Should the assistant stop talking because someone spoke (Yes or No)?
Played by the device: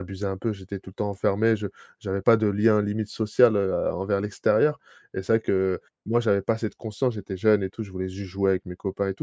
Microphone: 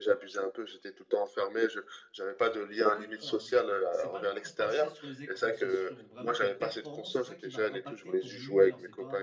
Yes